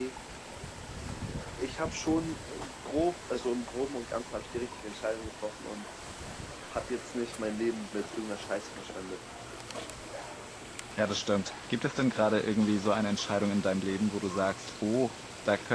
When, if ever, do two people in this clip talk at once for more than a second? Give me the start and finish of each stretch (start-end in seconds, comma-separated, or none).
none